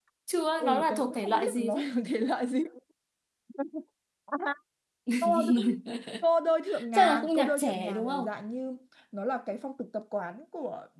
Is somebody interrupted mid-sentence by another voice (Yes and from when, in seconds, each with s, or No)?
Yes, from 0.6 s